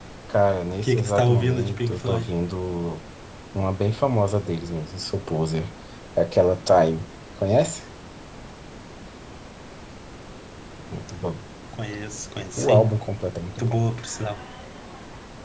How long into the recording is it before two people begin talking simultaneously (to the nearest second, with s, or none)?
1 s